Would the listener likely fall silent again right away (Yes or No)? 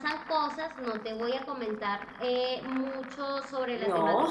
Yes